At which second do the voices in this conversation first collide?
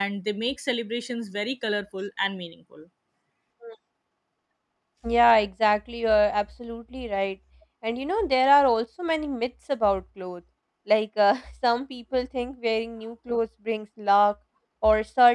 none

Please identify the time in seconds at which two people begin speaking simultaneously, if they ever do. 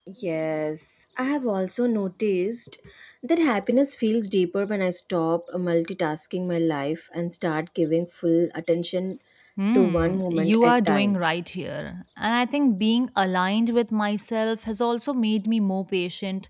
9.7 s

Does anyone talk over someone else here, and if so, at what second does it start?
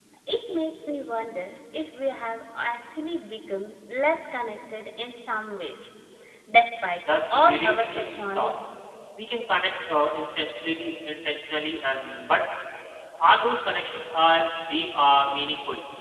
7.3 s

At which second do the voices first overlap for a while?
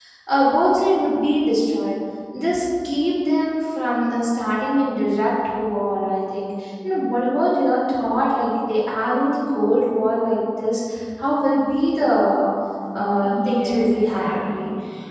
13.2 s

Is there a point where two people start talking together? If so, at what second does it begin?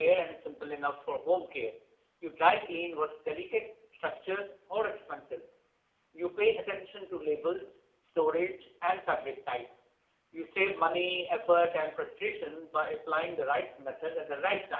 none

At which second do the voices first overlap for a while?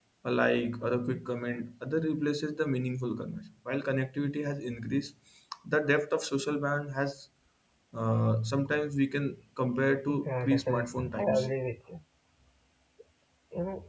10.1 s

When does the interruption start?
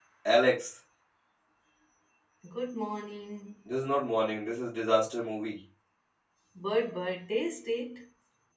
none

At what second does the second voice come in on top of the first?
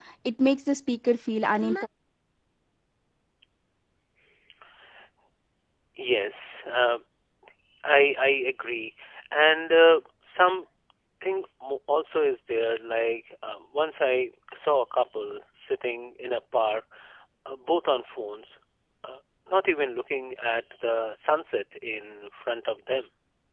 none

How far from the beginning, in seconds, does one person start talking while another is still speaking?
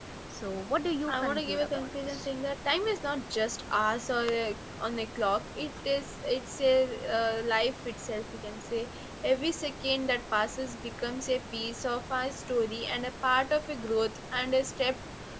1.1 s

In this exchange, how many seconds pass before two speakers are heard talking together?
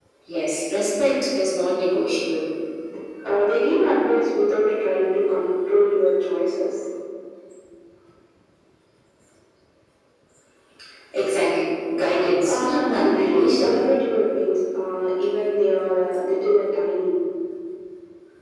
12.4 s

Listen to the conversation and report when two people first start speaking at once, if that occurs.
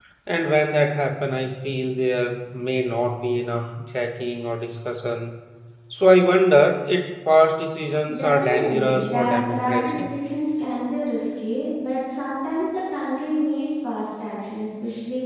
8.1 s

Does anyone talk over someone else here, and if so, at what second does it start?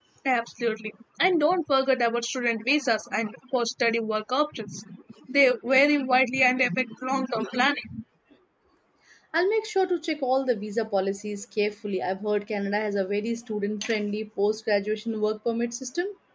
none

